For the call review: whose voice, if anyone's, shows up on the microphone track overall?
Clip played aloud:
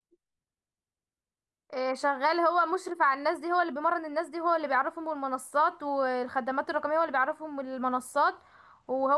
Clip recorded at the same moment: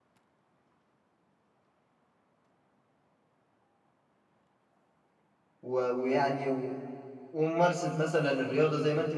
user only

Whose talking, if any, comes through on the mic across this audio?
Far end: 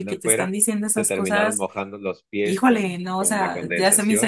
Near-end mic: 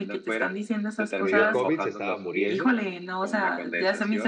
both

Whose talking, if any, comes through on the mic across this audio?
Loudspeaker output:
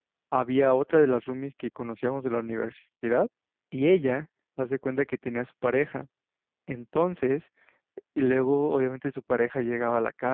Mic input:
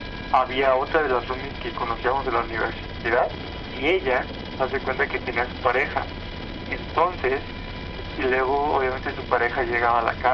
echo only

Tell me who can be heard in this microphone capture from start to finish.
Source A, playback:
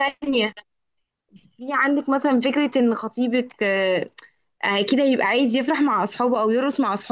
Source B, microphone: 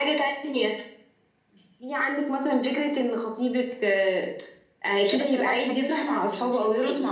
both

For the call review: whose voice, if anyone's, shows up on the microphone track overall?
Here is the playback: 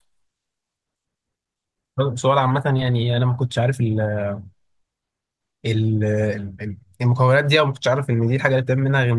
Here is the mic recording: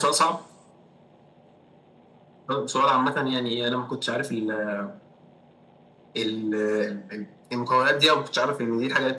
echo only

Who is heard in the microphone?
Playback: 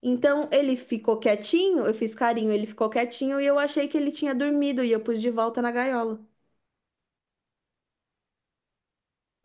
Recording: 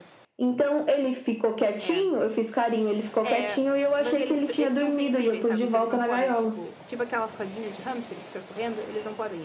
both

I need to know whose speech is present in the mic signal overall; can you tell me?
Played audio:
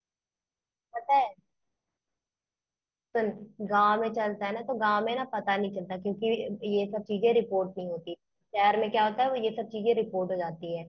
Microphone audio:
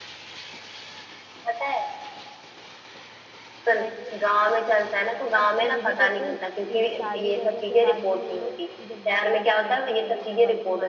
both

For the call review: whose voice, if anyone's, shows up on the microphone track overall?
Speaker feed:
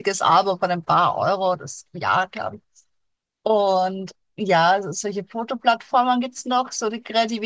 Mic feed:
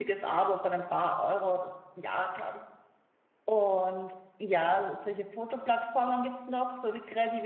echo only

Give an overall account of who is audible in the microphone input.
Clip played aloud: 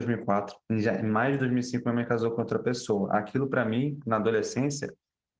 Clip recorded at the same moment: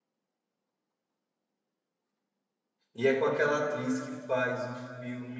user only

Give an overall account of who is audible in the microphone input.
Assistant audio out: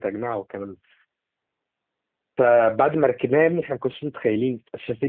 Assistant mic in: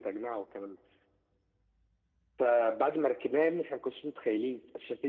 echo only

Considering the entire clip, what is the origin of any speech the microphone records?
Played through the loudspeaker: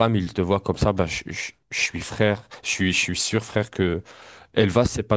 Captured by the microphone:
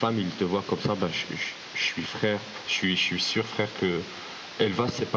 echo only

